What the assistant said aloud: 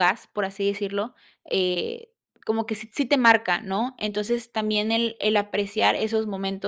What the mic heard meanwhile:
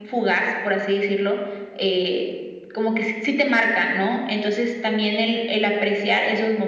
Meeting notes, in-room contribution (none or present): none